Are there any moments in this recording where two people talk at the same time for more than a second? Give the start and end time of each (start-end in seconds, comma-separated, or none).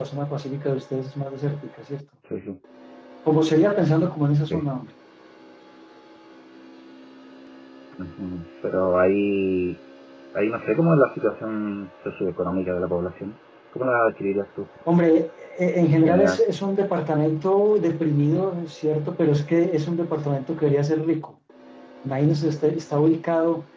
none